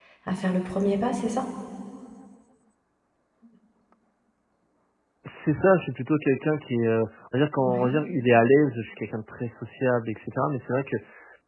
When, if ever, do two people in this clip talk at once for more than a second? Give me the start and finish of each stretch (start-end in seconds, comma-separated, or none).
none